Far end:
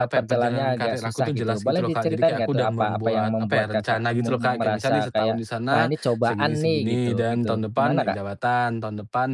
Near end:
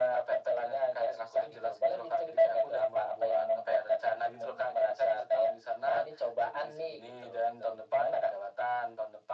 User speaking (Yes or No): No